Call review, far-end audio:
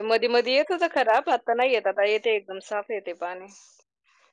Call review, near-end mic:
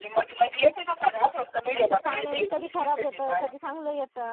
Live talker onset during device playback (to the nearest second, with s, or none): 2 s